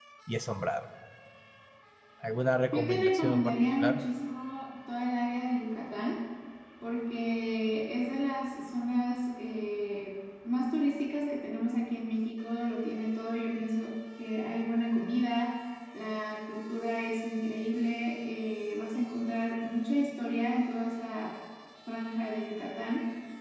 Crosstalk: present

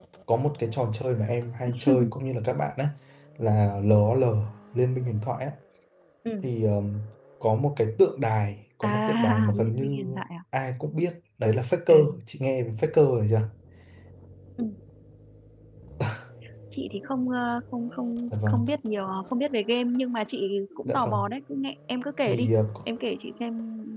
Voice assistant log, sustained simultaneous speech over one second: present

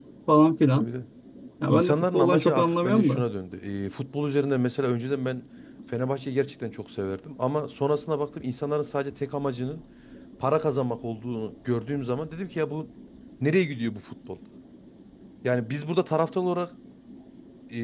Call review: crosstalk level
present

